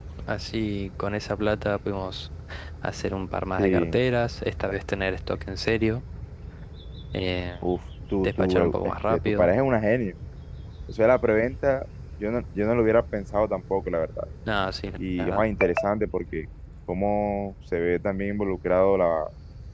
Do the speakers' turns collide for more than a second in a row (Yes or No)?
Yes